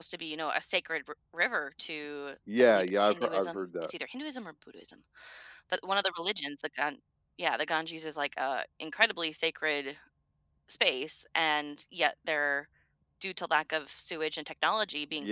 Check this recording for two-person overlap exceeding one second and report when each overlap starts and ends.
2.7-3.9

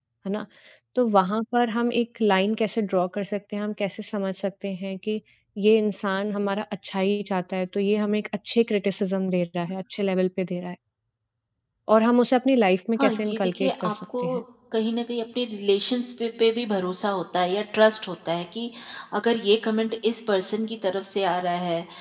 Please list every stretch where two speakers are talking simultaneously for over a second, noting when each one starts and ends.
13.0-14.4

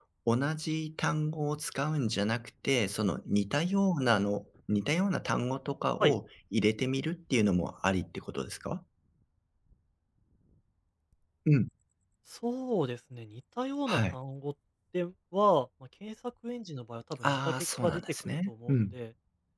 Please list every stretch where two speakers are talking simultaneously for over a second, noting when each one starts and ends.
17.2-19.0

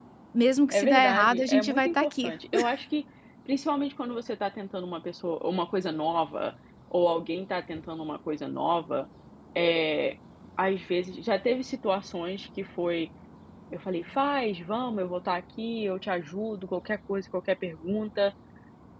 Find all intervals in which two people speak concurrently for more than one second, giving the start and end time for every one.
0.7-2.3

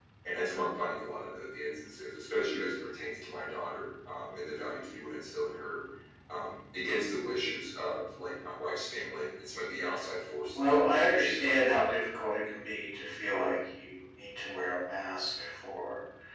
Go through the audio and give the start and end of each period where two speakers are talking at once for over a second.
10.6-11.8

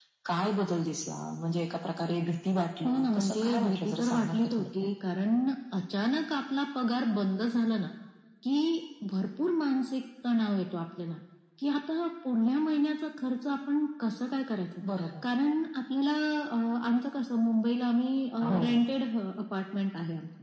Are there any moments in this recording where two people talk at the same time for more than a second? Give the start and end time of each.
2.9-4.9

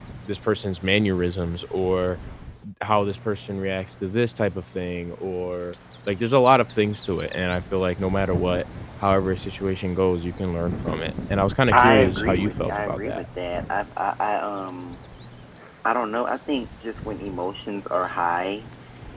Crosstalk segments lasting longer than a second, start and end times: 11.7-13.2

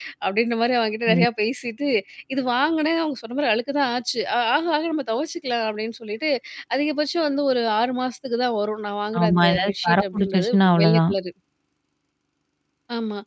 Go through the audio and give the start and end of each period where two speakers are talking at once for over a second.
9.2-11.1

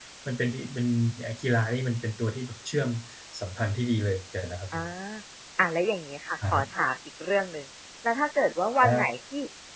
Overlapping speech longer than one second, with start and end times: none

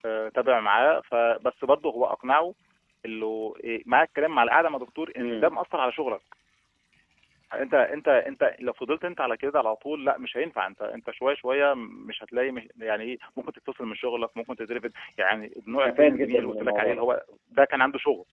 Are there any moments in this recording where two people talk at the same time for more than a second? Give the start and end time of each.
15.7-17.0

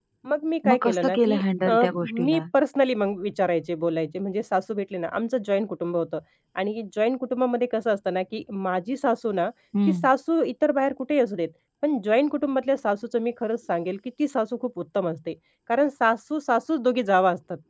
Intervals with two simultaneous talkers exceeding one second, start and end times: 0.7-2.4

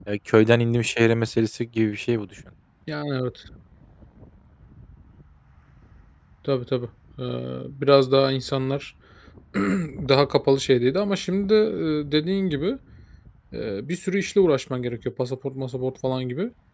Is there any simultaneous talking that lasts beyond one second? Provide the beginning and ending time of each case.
none

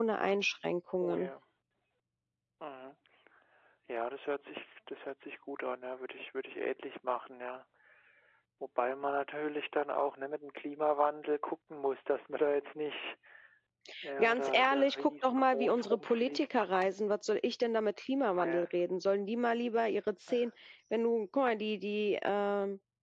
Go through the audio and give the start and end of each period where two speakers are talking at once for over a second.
14.2-16.5

